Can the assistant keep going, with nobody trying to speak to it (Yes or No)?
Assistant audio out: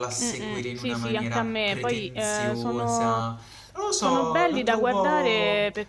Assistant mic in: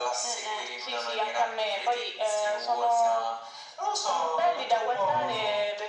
No